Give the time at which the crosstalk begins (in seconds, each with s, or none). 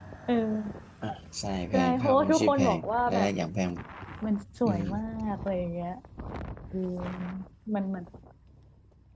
1.7 s